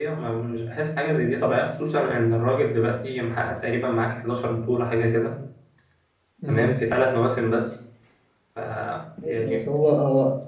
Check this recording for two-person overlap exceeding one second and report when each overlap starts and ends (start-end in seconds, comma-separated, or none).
none